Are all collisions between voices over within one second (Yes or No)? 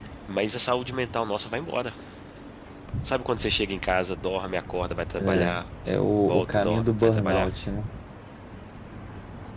No